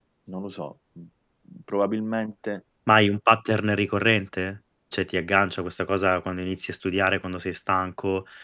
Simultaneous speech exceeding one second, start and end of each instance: none

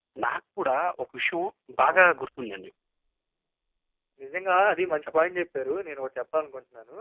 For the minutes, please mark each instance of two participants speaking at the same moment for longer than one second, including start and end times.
none

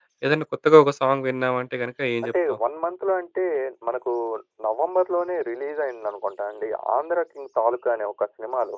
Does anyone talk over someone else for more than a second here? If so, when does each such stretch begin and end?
none

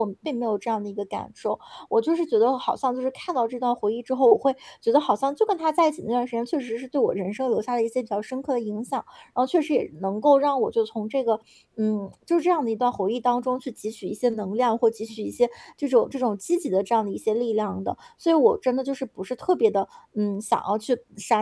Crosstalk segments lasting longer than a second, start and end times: none

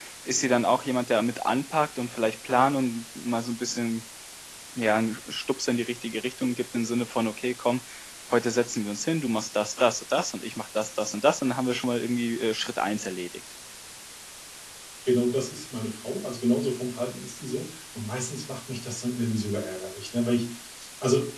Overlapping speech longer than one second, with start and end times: none

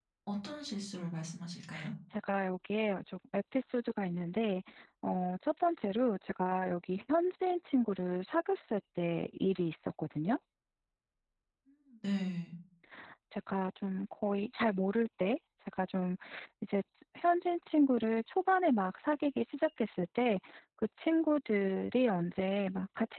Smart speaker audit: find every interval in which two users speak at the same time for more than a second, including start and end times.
none

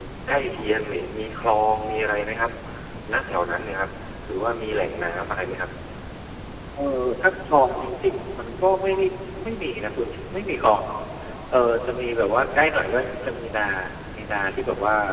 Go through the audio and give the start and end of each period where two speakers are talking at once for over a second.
none

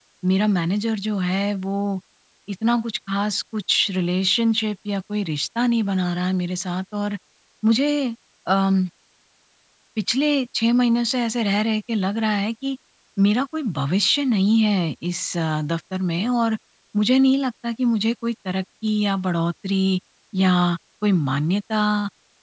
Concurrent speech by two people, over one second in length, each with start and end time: none

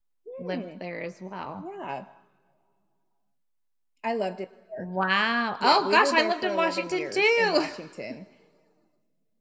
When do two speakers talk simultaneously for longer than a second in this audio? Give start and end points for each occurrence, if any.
5.6-7.7

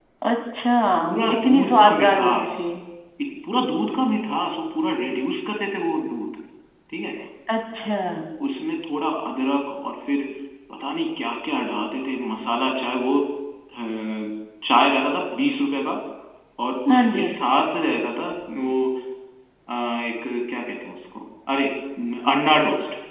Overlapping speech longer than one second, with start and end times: 1.0-2.6

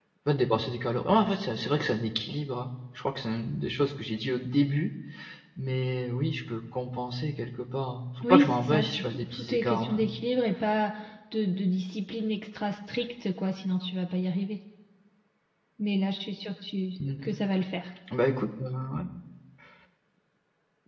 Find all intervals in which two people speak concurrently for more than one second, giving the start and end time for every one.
8.2-10.0

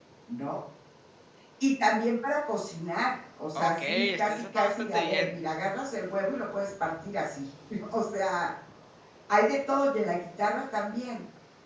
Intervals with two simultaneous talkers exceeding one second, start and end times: 3.5-5.3

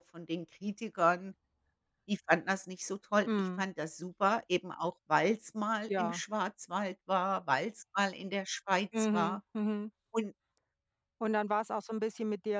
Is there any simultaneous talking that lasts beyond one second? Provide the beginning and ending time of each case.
none

